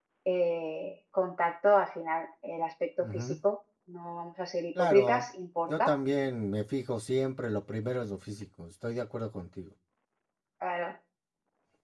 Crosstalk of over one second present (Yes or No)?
No